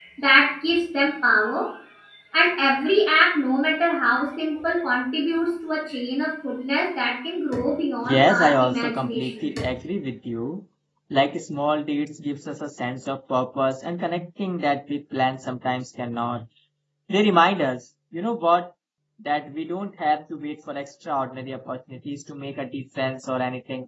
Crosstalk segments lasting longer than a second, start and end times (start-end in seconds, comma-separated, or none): 8.1-9.5